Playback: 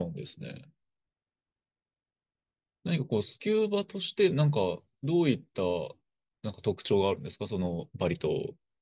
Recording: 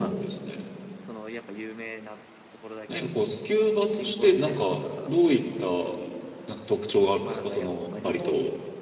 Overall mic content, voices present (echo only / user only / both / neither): both